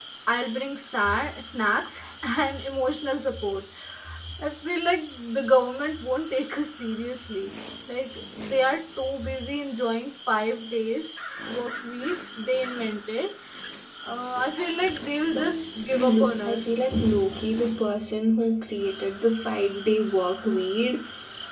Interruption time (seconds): 15.3 s

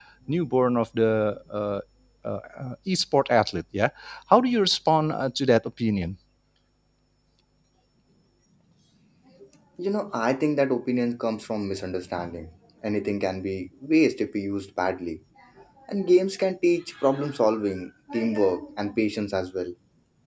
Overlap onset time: none

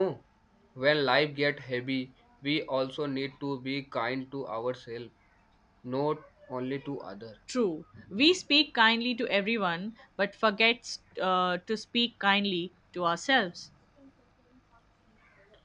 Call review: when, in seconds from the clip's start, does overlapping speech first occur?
none

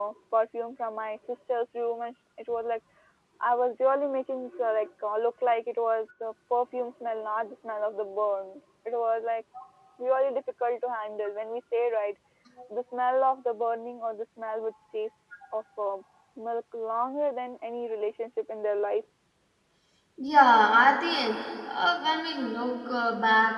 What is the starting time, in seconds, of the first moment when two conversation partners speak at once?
none

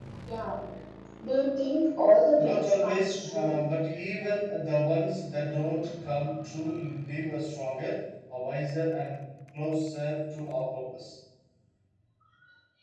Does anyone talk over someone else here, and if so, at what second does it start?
2.4 s

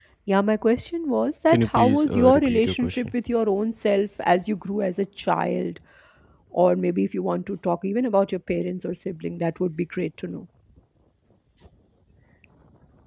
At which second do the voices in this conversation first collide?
1.5 s

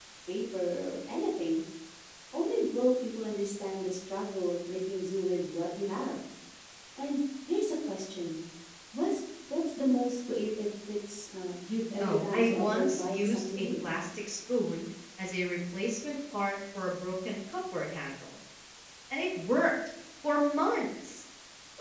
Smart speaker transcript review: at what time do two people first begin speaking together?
12.0 s

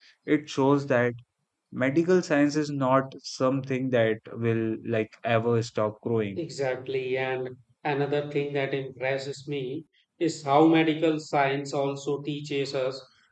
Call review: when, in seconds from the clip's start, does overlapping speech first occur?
none

